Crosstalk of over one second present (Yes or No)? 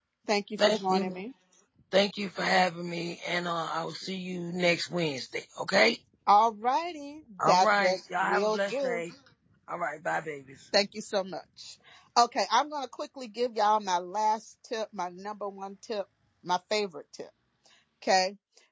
Yes